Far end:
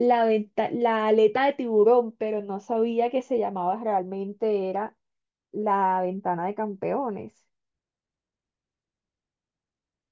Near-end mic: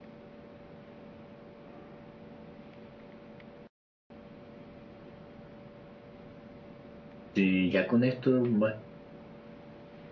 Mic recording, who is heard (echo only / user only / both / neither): user only